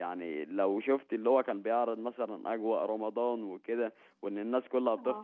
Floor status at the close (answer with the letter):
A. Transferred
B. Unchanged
B